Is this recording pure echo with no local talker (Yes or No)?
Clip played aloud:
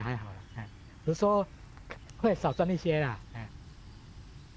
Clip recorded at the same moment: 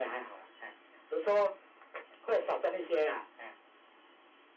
Yes